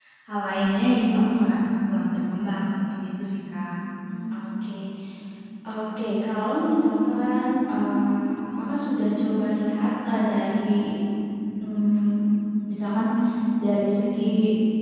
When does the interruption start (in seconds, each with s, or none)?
none